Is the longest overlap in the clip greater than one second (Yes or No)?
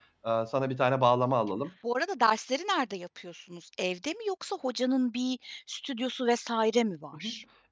No